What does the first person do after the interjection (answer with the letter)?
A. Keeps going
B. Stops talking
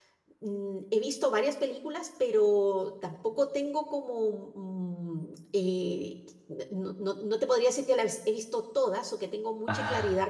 A